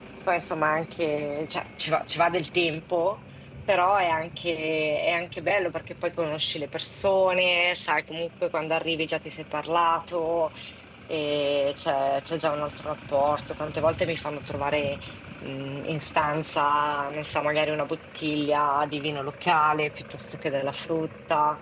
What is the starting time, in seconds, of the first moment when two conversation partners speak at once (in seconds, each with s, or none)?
none